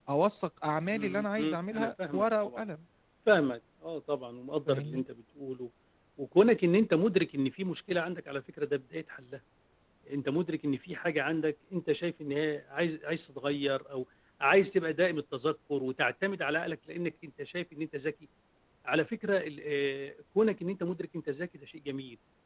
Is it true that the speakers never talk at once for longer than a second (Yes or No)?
No